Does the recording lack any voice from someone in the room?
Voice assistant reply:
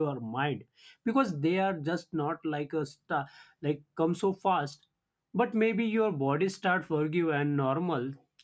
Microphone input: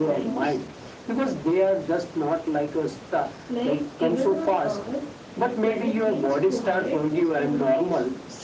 No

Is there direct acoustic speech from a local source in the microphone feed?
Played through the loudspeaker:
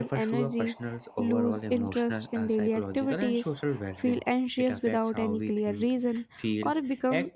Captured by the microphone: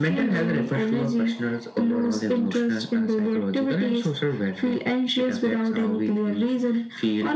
No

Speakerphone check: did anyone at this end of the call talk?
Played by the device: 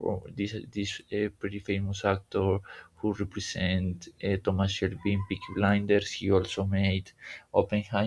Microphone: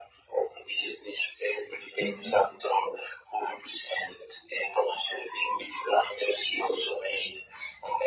Yes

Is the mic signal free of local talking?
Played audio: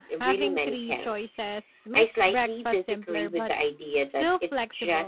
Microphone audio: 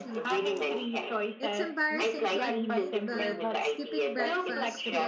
No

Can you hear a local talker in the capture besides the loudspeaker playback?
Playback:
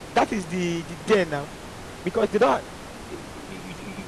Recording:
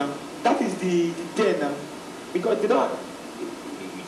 No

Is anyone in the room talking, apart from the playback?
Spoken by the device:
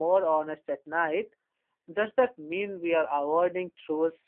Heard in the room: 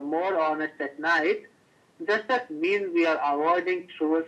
No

